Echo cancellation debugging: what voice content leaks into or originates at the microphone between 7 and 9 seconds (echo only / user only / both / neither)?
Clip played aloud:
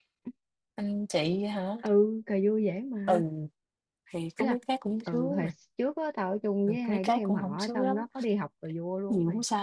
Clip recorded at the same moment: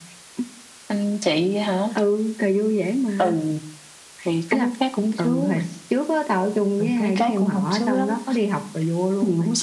echo only